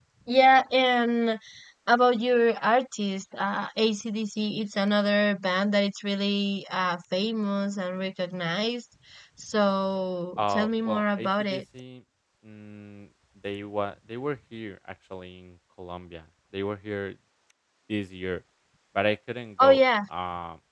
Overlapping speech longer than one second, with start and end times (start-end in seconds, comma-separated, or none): 10.4-11.6